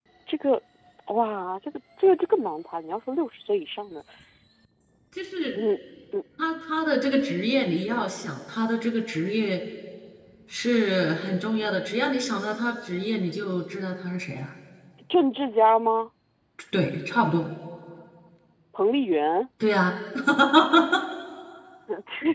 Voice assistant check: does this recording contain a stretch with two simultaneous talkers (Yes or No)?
No